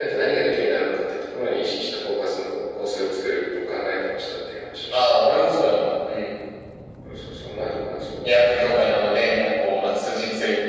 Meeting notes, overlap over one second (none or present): none